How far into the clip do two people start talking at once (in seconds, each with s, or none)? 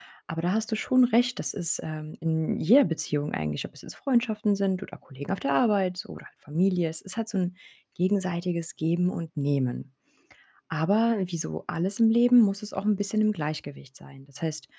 none